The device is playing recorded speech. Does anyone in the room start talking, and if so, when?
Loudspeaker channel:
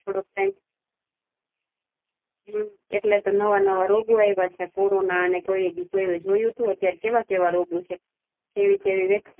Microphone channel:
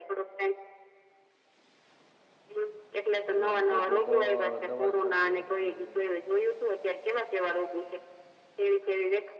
3.3 s

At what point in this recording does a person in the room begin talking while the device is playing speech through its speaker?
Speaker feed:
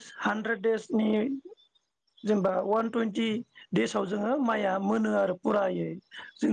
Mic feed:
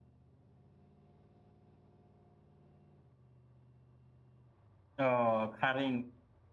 5.0 s

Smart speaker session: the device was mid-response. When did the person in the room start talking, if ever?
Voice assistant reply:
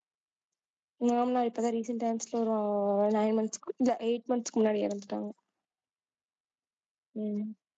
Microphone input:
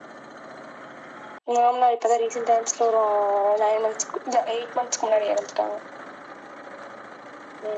none

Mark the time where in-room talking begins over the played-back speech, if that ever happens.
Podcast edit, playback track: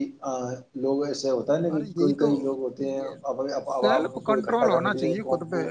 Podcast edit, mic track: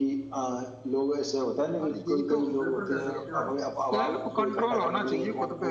2.3 s

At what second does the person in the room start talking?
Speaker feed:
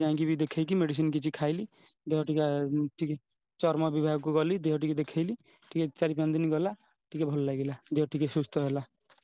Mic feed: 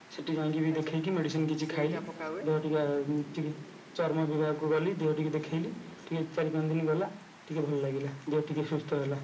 0.7 s

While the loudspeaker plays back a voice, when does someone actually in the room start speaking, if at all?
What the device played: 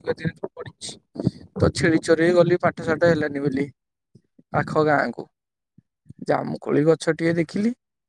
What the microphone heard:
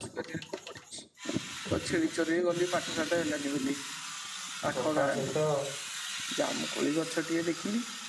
4.7 s

